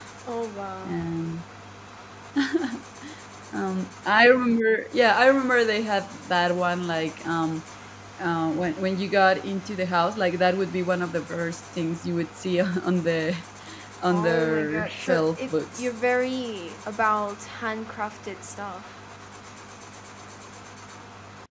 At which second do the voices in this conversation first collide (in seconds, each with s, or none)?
14.1 s